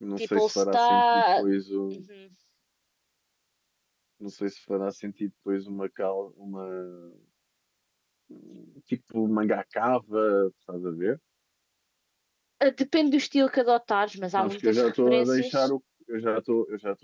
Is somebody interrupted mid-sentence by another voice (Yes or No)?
Yes